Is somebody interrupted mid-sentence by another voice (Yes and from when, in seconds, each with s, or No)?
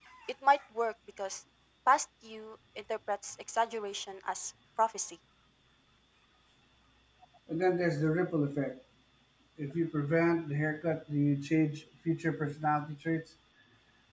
No